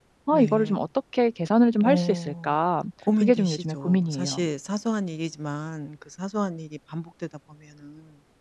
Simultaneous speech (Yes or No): Yes